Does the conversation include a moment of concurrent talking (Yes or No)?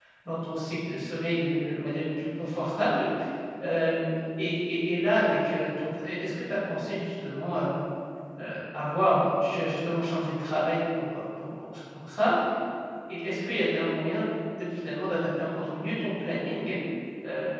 No